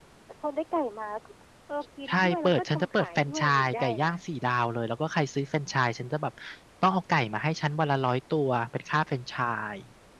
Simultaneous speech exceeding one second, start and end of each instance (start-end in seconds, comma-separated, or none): 2.1-4.1